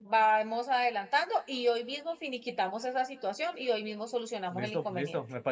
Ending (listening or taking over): taking over